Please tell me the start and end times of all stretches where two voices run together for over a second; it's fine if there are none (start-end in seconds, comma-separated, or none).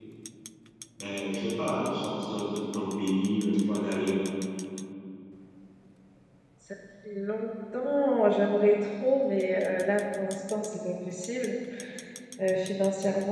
none